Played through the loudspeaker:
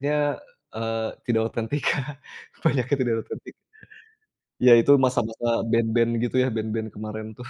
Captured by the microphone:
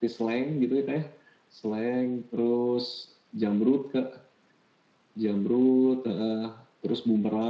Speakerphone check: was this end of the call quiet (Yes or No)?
No